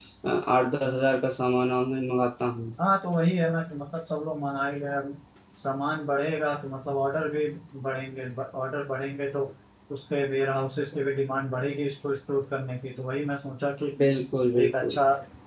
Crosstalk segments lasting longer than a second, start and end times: none

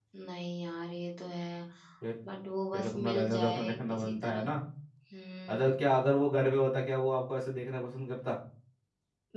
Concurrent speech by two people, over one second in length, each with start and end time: 2.7-4.5

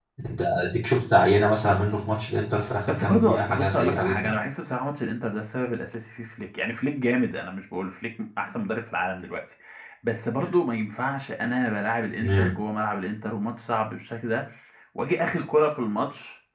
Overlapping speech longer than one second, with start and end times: 2.9-4.3

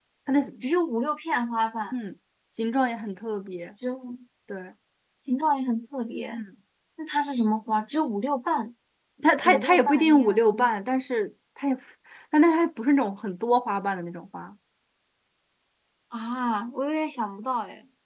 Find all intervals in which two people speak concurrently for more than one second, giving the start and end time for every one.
9.4-10.7

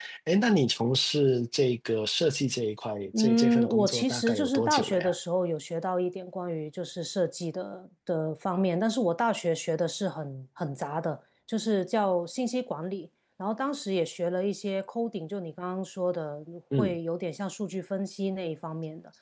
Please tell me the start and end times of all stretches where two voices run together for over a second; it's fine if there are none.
3.2-5.1

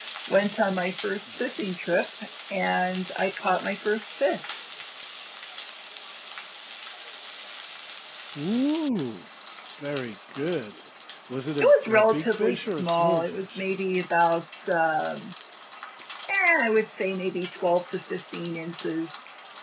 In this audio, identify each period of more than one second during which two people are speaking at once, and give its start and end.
11.6-13.7

